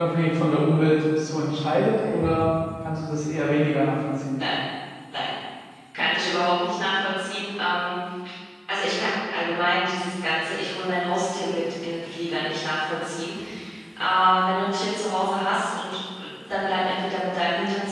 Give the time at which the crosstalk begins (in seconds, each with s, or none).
none